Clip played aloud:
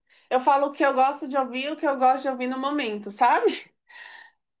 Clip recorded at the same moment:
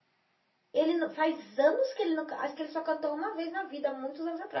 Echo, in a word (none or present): none